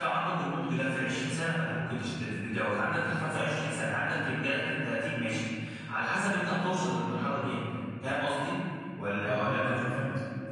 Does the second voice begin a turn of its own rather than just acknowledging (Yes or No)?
Yes